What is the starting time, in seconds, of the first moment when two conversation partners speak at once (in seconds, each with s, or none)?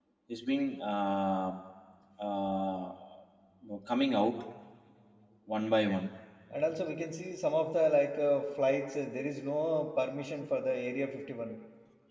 none